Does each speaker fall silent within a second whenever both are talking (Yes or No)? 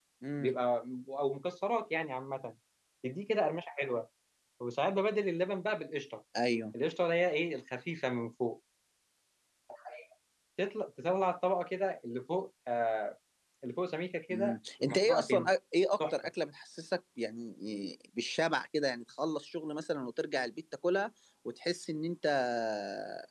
No